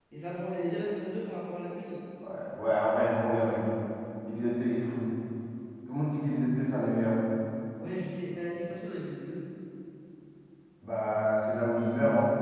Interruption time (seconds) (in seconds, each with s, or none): none